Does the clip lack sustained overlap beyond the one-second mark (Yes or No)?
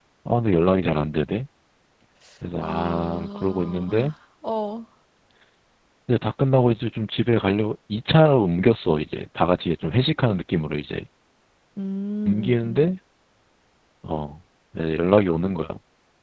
No